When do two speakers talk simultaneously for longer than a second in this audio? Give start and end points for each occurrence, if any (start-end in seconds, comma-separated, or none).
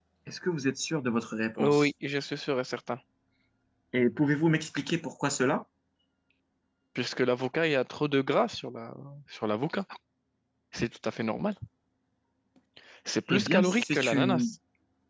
13.3-14.5